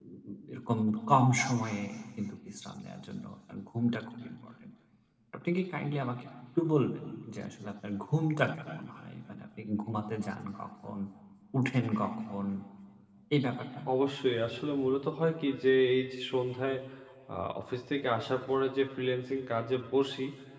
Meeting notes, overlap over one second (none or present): none